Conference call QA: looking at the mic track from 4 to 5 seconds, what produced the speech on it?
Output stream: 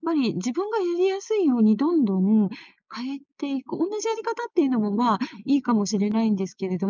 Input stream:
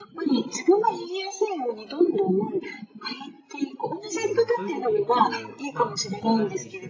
both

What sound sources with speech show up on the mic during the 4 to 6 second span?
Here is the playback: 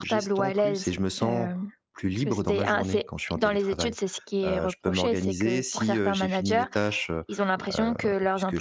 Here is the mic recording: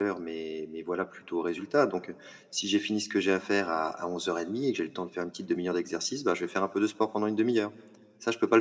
user only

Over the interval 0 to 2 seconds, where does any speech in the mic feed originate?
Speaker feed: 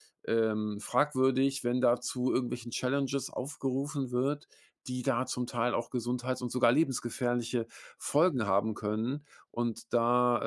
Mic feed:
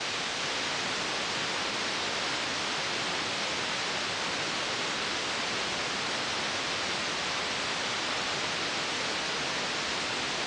neither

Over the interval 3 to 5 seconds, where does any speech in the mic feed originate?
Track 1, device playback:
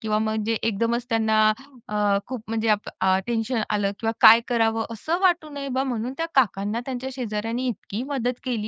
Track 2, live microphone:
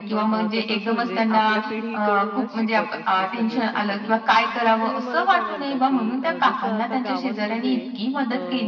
both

